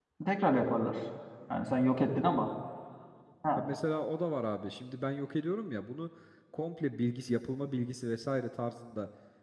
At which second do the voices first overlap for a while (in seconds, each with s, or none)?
none